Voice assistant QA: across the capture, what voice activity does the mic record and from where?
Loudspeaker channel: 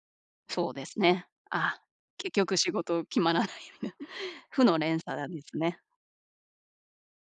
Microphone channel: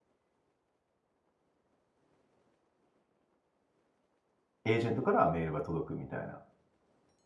user only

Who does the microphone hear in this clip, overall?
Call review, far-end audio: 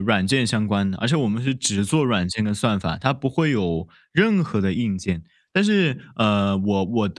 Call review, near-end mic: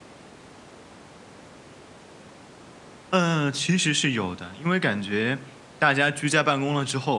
user only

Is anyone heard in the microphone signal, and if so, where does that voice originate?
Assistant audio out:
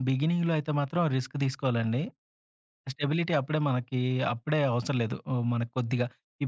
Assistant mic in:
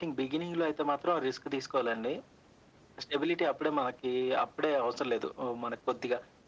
echo only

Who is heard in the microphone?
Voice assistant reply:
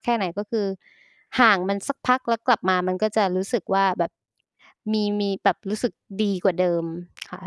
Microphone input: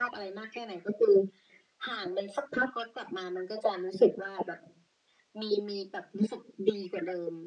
echo only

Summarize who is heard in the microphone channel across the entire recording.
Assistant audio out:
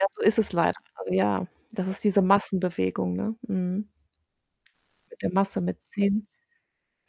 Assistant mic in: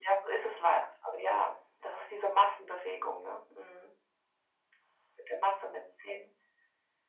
echo only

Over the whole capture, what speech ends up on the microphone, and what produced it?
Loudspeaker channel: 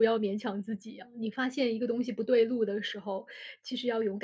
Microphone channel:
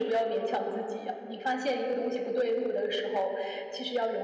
echo only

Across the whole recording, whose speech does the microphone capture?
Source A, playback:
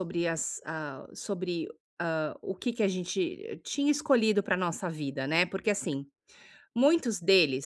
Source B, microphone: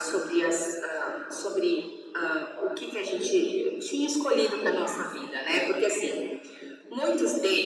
echo only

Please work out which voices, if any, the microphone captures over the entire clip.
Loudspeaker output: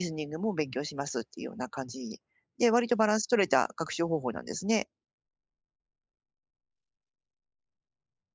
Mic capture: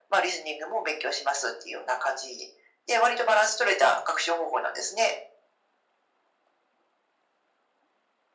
echo only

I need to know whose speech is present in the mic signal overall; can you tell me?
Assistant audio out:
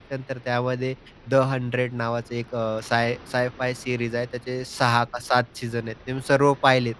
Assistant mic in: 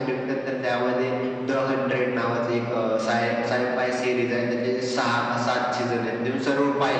echo only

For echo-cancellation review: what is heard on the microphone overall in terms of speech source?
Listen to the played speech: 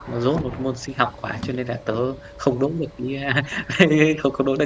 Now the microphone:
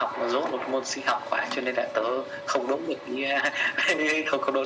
echo only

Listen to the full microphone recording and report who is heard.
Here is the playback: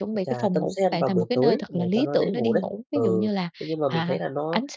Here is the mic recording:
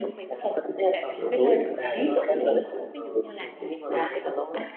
both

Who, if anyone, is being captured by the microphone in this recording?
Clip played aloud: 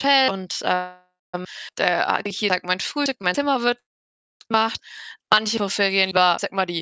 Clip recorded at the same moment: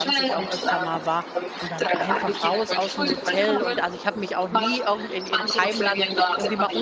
both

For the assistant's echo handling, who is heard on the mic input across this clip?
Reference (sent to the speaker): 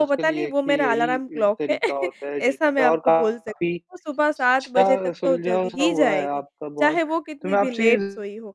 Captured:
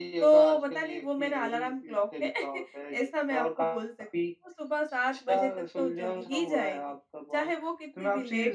echo only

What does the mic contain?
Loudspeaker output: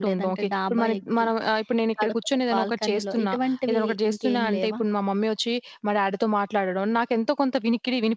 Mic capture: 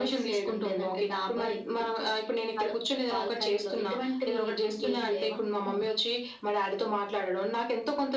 both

